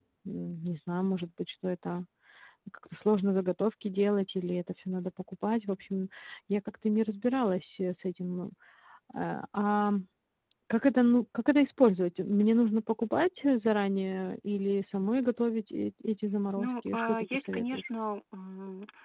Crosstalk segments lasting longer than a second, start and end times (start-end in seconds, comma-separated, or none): 16.6-17.8